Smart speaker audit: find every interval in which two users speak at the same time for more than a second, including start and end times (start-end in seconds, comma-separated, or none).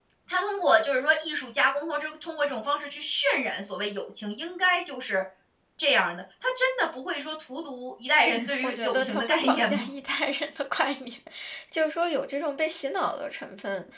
8.6-9.8